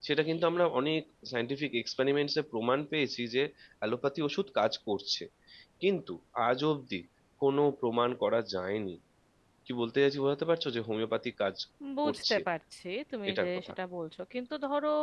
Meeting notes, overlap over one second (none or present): none